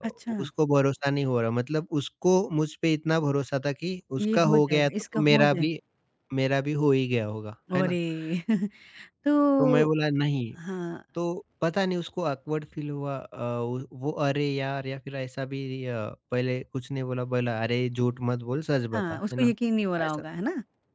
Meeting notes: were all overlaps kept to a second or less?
No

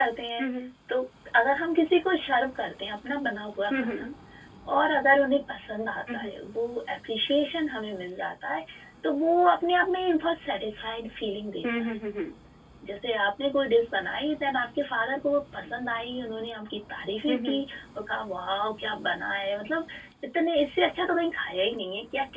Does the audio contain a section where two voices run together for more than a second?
No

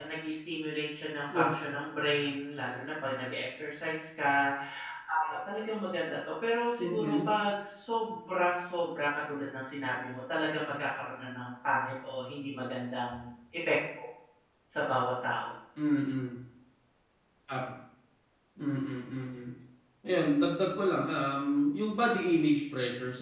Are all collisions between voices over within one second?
Yes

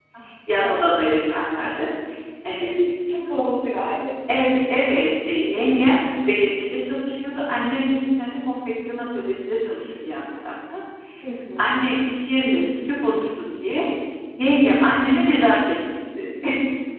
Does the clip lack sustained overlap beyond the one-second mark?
Yes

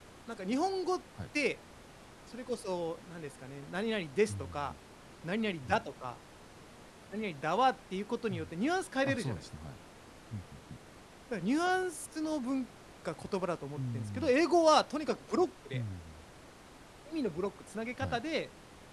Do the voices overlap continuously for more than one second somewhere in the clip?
No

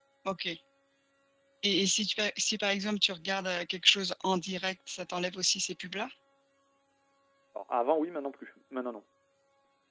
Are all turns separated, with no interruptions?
Yes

